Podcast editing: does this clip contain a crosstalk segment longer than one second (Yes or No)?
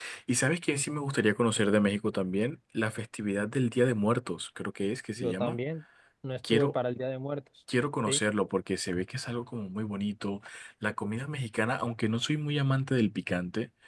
No